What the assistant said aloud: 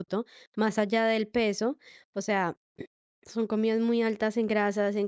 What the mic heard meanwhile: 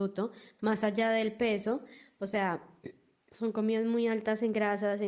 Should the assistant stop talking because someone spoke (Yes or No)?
No